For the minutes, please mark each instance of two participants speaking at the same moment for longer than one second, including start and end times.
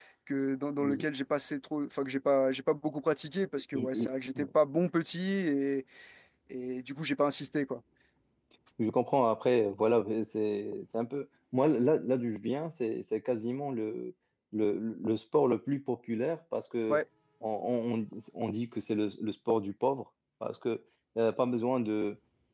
none

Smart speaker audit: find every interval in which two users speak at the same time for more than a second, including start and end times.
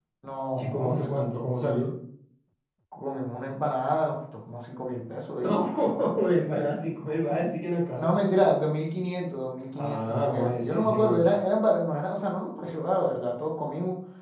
9.8-11.2

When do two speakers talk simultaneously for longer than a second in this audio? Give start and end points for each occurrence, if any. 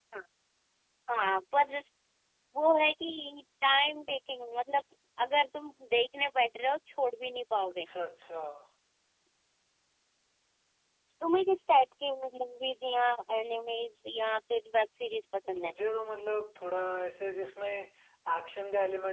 none

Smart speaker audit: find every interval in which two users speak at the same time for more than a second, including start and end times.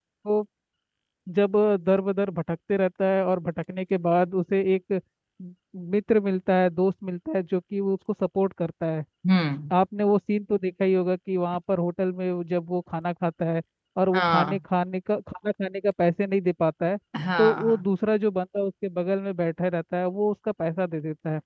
none

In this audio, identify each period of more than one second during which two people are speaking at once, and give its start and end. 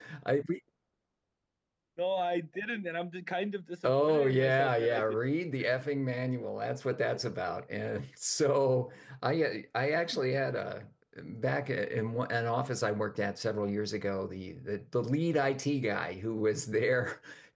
3.8-5.2

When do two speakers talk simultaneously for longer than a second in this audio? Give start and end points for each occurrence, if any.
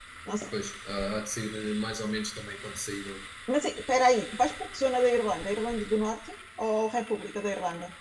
none

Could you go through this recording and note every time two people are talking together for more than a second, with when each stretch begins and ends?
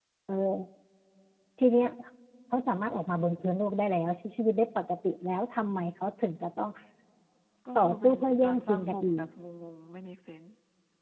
7.8-9.2

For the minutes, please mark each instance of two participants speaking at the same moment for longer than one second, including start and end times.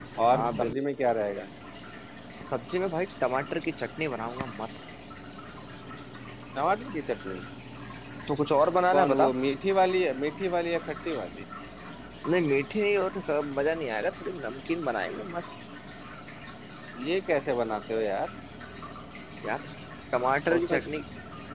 none

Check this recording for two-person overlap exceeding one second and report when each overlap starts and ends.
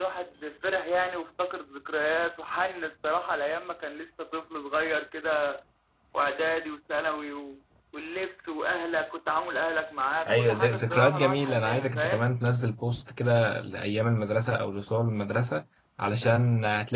10.3-12.3

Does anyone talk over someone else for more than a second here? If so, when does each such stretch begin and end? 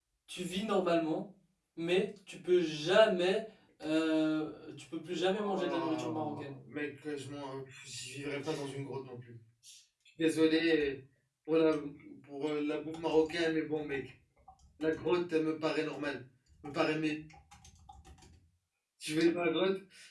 5.1-6.5

